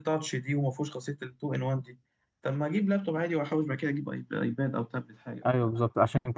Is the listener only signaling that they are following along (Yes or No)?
No